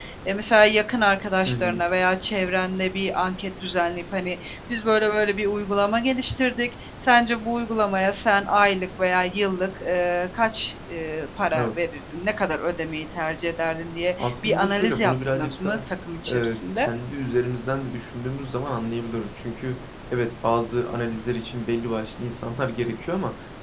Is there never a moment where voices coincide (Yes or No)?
No